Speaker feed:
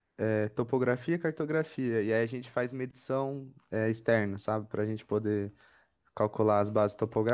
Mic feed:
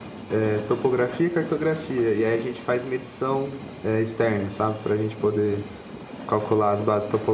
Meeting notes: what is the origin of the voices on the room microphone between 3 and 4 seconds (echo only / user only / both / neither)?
echo only